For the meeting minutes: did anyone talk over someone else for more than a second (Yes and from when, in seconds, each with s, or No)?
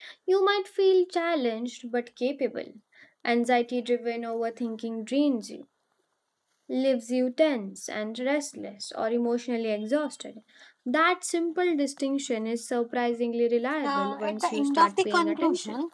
Yes, from 13.8 s